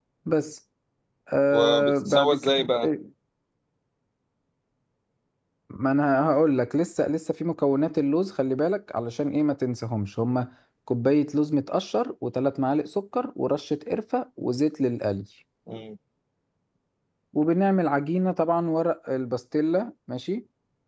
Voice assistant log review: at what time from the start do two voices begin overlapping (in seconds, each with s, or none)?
1.5 s